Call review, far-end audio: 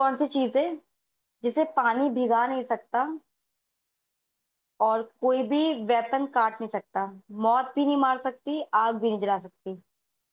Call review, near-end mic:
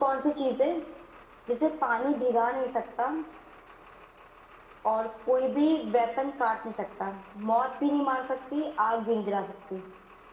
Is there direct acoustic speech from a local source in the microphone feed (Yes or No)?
No